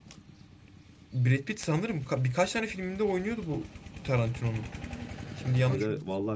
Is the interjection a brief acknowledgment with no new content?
No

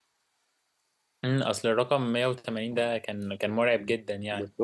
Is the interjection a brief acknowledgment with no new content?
No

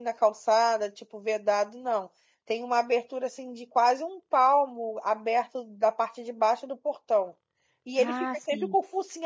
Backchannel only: Yes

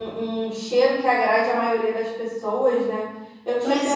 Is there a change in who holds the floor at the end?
No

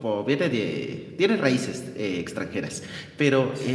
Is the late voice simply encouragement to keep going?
Yes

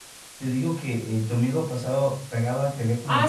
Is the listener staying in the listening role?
No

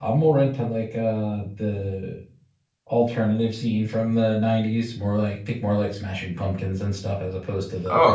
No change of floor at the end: No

